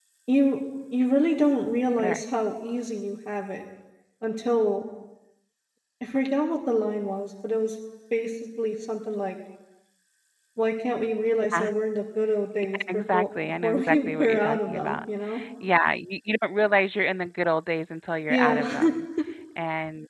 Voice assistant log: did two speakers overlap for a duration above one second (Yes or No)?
Yes